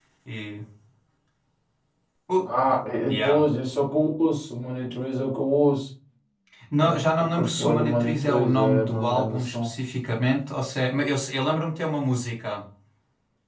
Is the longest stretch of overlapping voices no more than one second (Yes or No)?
No